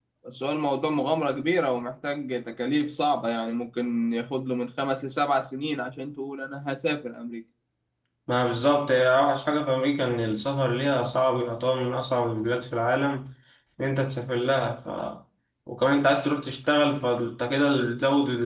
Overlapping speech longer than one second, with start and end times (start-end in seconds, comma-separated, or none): none